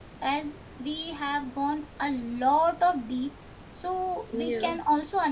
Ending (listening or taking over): listening